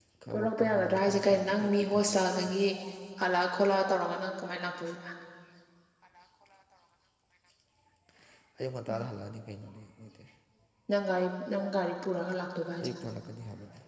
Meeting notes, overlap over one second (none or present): present